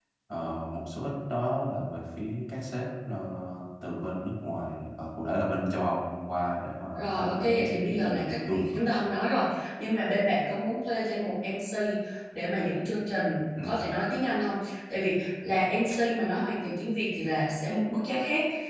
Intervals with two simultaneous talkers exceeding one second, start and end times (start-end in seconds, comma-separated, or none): 7.0-8.6